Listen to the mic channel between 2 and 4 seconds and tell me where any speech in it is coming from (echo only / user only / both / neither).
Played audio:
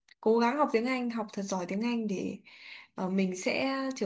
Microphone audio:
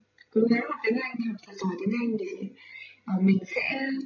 echo only